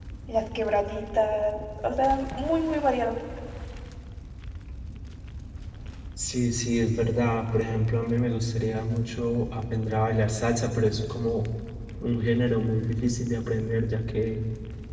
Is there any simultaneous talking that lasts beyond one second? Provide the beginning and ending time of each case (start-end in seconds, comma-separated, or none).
none